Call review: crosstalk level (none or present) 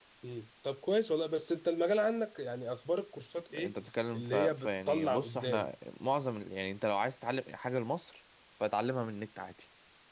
present